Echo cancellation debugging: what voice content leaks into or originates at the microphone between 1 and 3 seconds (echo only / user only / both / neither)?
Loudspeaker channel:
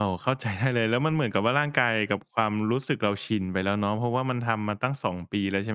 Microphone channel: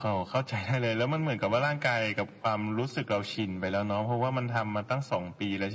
echo only